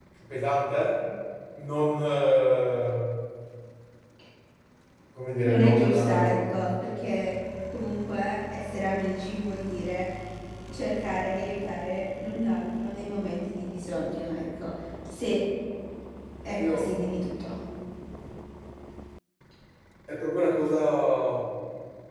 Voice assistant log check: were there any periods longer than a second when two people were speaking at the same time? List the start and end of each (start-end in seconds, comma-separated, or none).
5.4-6.6